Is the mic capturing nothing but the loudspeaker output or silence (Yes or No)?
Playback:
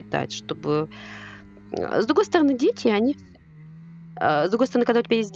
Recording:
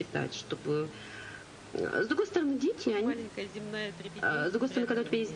No